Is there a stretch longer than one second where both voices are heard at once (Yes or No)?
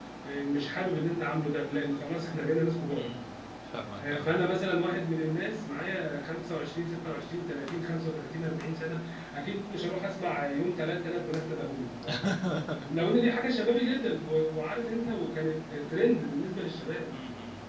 No